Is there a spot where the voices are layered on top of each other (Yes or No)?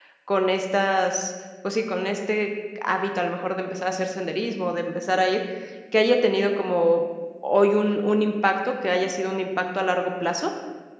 No